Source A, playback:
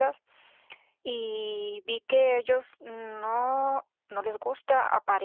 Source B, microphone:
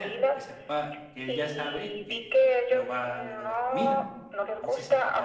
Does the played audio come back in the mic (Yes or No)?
Yes